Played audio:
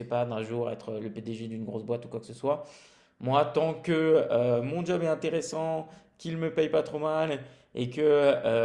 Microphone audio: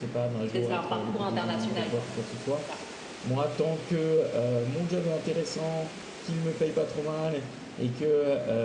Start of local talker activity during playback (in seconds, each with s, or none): 0.5 s